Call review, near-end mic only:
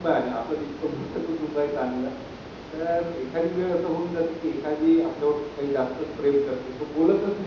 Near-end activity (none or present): present